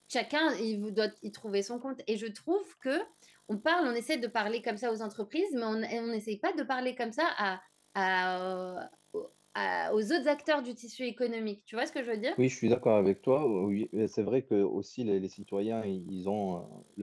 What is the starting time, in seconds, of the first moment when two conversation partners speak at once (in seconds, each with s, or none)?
none